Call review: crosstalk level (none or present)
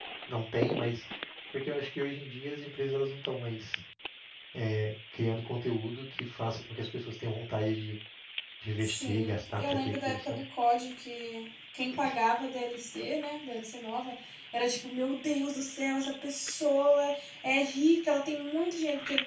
present